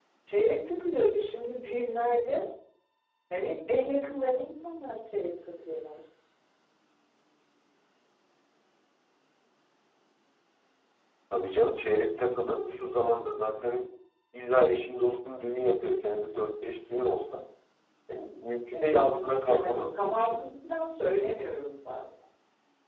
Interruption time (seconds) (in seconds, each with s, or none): 18.8 s